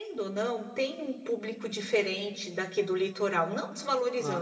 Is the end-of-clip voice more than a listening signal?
No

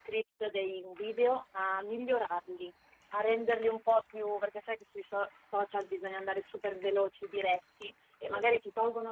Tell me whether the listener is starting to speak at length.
No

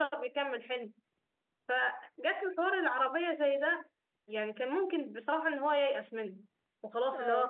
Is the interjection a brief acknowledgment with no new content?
Yes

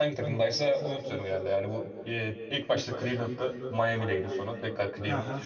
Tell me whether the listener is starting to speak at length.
Yes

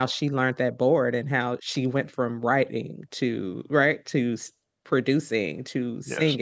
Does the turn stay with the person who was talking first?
Yes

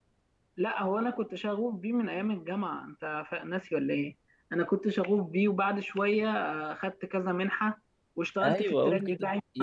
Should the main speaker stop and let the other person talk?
Yes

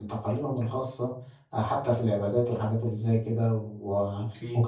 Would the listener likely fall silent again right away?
Yes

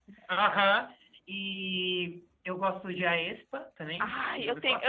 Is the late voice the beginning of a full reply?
Yes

